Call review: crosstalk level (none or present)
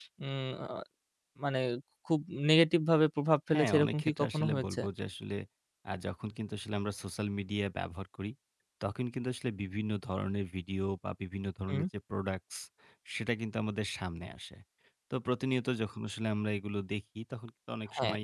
present